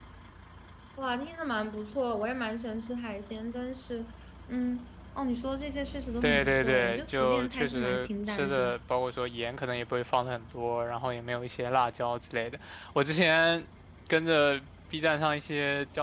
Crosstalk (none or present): present